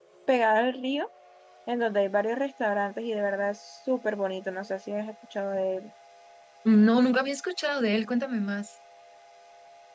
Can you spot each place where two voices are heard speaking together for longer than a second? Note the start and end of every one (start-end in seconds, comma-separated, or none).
none